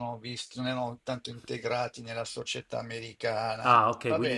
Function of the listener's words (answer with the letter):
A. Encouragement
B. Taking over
B